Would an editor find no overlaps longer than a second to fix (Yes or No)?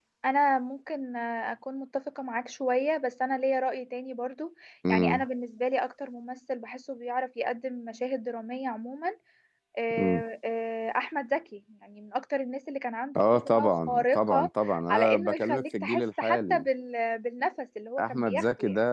No